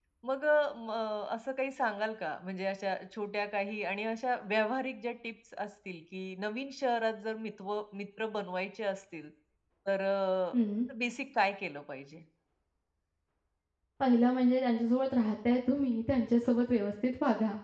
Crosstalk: none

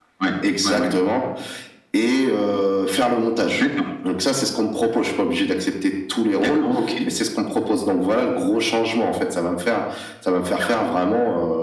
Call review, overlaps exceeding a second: none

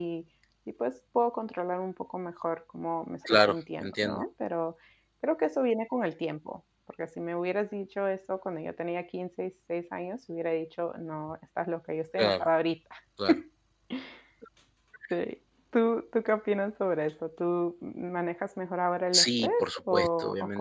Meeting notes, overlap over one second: present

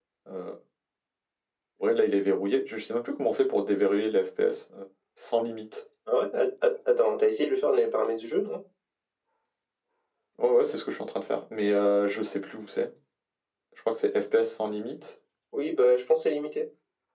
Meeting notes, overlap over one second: none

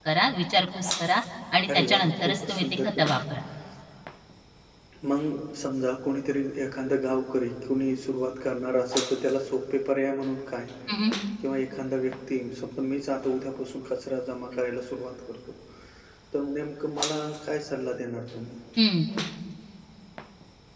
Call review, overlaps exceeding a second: present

